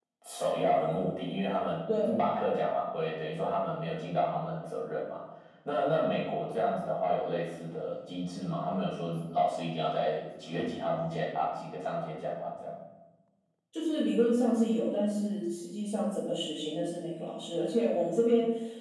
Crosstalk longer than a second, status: none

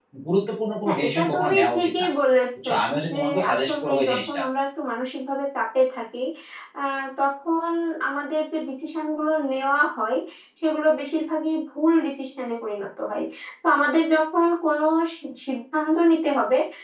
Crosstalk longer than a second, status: present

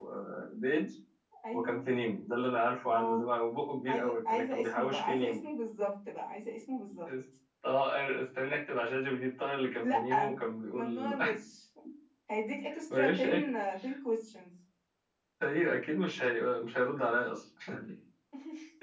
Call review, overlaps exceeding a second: present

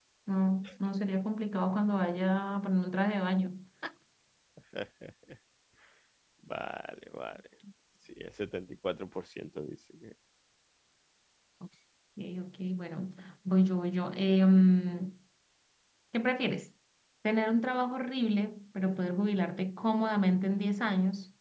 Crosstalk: none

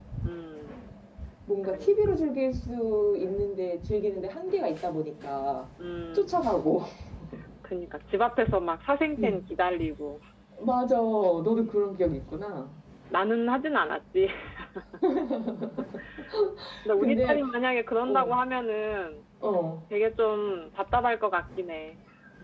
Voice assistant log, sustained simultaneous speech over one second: none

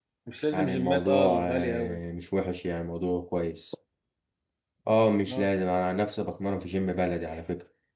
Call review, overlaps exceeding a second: present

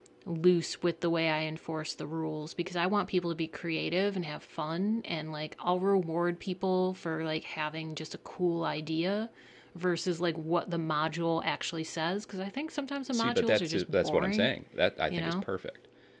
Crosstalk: present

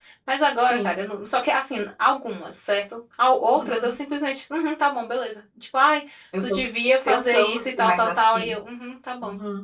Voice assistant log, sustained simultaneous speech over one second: present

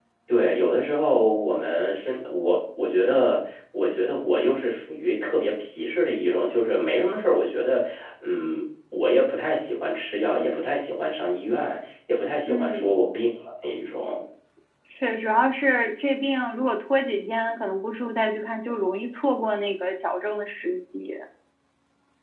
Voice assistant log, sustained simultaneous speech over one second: none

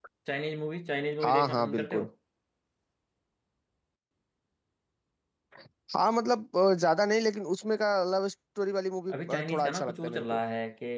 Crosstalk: present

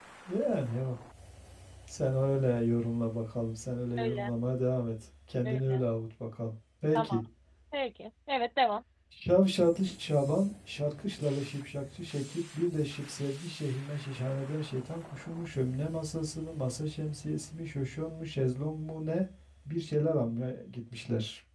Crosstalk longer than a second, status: none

